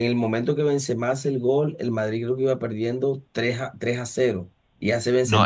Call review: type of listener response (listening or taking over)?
taking over